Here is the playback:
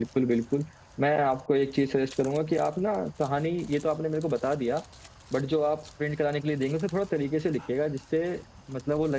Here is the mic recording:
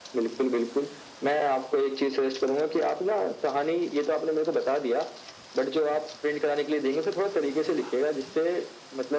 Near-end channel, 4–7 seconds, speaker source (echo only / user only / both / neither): echo only